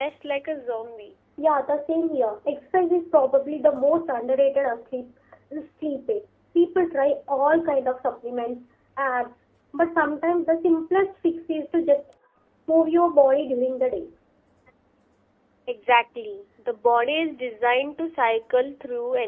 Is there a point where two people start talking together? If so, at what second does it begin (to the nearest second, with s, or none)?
none